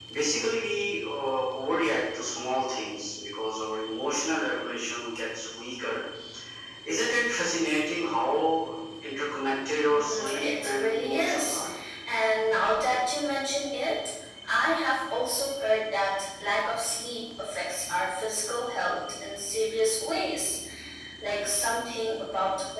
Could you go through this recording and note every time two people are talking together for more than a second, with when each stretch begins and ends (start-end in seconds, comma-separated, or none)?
9.9-11.6